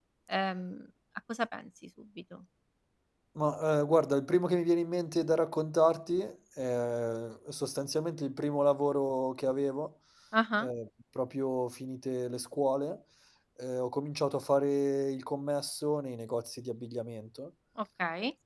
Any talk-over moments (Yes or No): No